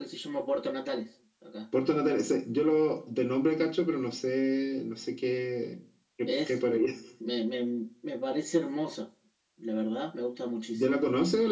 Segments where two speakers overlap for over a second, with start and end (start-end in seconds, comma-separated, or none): none